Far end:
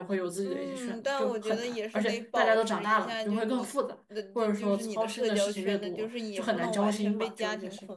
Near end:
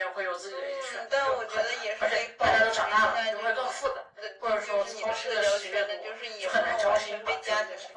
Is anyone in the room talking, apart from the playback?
No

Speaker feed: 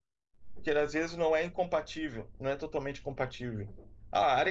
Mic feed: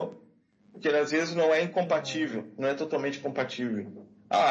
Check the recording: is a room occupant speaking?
Yes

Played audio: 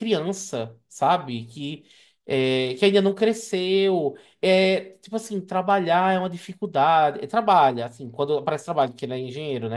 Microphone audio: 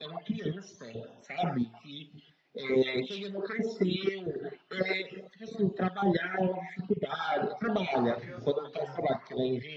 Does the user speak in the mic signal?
Yes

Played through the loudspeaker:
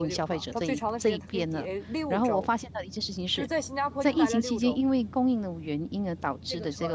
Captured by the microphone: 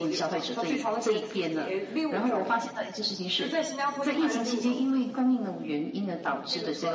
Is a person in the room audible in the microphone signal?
No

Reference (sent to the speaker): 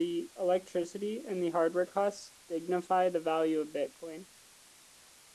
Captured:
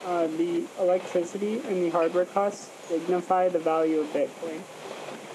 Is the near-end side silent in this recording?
Yes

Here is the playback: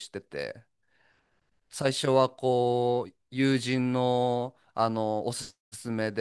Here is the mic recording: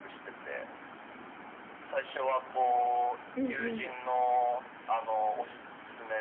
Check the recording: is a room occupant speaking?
Yes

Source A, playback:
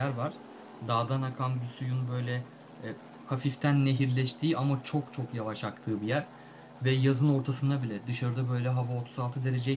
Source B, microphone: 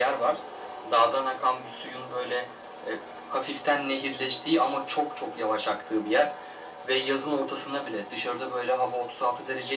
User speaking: No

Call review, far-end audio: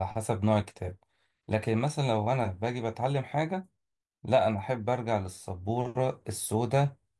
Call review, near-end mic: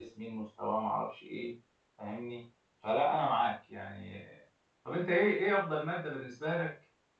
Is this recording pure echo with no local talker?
No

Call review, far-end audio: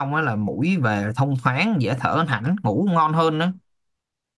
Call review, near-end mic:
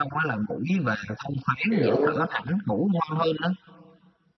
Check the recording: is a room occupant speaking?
Yes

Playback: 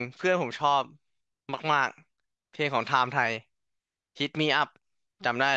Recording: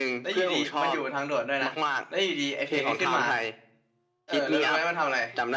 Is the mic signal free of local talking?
No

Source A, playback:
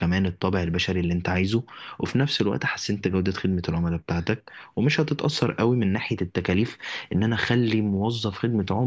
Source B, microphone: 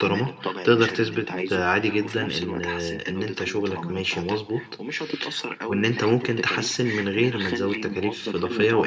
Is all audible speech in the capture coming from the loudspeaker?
No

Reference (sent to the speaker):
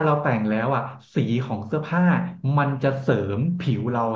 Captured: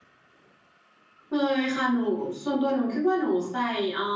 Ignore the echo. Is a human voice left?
Yes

